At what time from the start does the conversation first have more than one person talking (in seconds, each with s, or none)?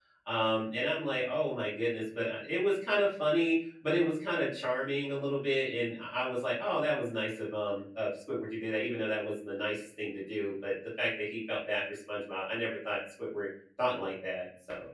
none